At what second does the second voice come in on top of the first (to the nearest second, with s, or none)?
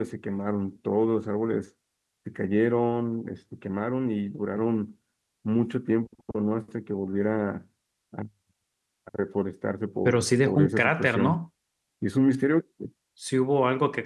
10 s